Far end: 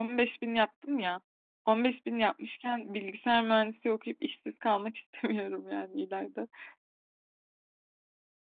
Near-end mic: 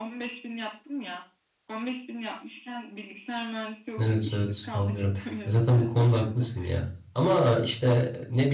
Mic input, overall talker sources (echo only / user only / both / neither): both